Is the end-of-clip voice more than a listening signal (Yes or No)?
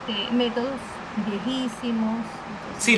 Yes